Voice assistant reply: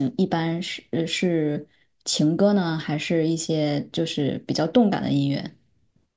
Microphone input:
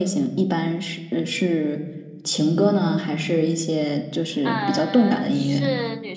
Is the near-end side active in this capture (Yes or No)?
Yes